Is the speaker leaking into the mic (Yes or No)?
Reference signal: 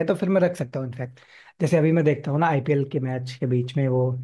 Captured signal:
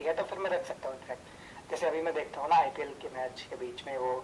Yes